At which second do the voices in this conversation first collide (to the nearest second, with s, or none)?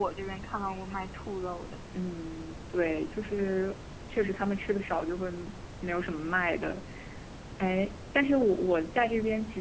none